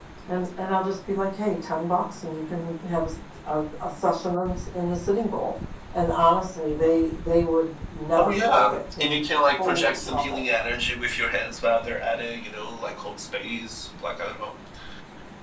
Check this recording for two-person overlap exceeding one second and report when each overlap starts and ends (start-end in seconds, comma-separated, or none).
8.2-10.4